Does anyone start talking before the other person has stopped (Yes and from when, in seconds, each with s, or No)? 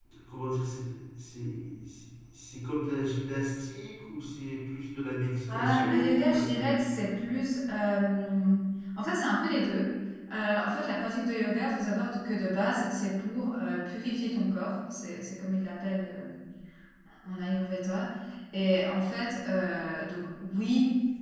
Yes, from 5.5 s